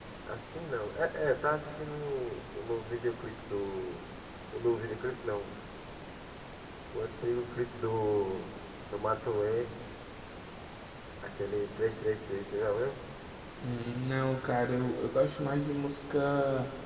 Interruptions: none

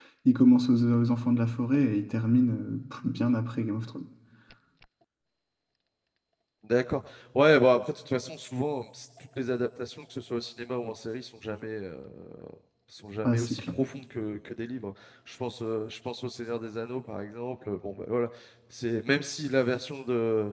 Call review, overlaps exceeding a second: none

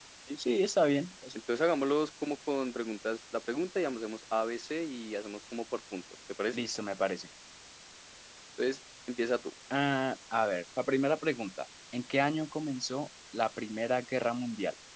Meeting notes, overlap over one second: none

